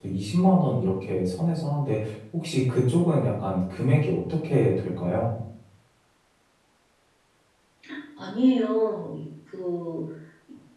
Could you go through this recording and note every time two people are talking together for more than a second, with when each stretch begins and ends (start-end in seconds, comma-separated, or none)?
none